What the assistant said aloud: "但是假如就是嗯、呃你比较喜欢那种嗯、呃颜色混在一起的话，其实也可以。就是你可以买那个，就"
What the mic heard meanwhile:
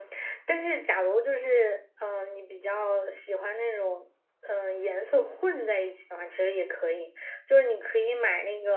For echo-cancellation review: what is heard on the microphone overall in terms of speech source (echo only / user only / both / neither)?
echo only